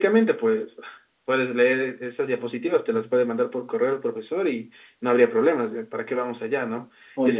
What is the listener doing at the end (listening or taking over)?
listening